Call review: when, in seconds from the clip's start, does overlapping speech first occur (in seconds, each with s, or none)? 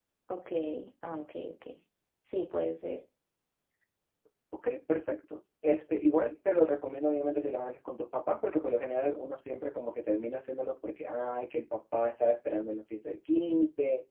none